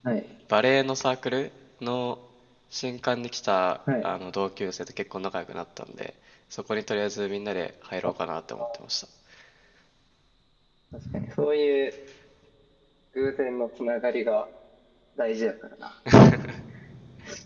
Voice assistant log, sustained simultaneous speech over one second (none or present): none